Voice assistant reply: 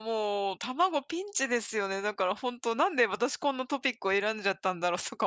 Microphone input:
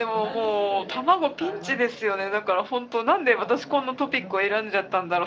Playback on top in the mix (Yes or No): Yes